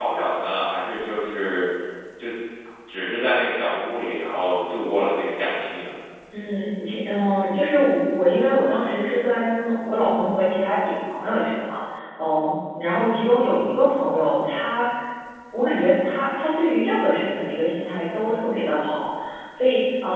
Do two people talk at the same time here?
No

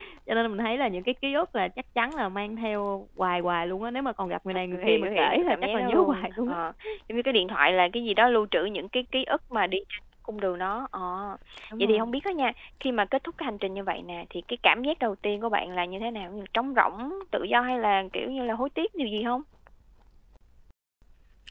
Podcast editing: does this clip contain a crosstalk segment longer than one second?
Yes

